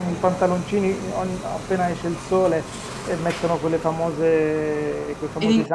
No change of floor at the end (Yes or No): Yes